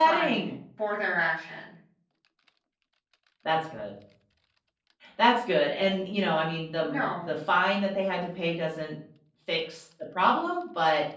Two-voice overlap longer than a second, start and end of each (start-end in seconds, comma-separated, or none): none